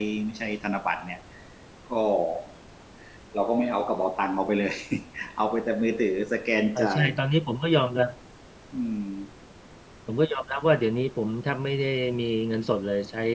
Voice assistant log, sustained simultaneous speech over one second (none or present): none